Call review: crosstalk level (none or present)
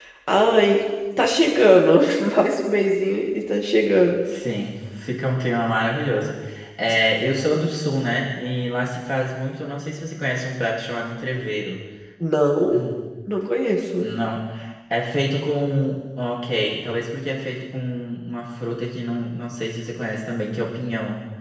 none